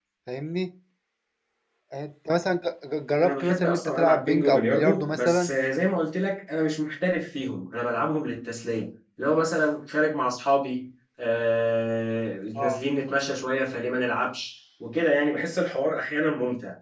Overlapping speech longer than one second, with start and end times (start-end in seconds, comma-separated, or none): 3.2-5.5